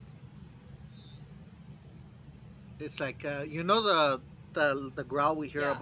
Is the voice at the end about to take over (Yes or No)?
No